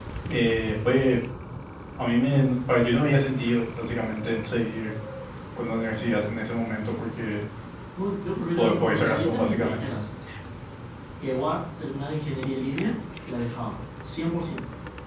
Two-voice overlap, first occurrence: 9 s

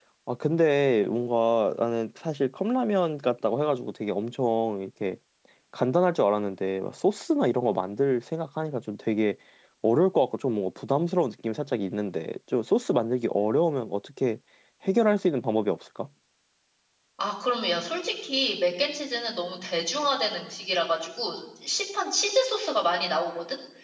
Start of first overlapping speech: none

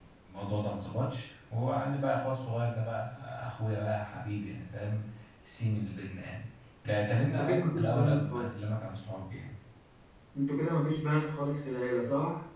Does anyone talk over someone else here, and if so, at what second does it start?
7 s

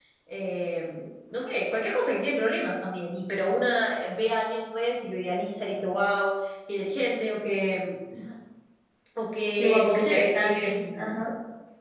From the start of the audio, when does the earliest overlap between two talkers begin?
10 s

